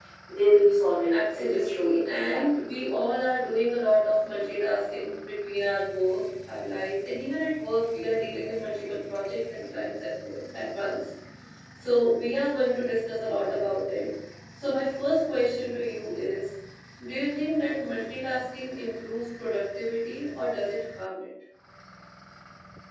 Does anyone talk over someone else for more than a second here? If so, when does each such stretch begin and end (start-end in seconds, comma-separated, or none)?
1.1-2.4